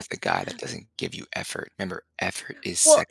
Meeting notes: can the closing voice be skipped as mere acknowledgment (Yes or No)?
No